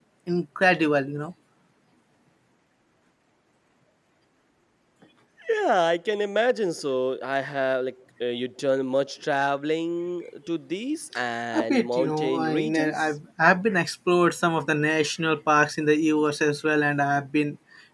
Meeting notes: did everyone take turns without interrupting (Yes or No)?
No